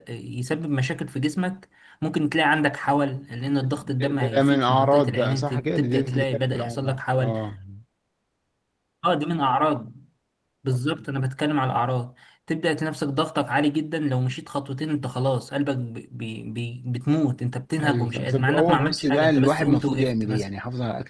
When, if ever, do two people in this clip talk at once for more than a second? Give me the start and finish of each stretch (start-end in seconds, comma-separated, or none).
3.5-7.3, 17.8-20.4